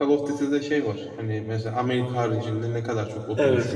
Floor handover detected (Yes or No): Yes